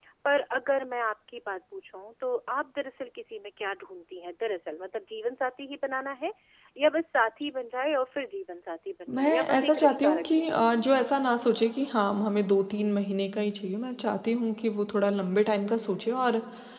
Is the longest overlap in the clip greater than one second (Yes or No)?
Yes